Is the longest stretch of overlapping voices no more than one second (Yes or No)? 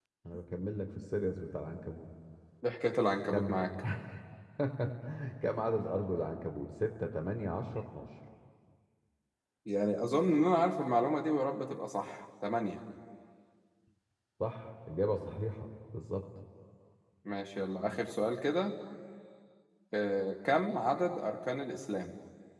Yes